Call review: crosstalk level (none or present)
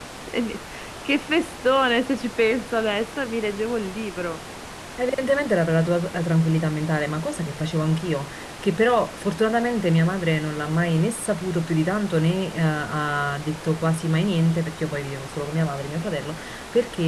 none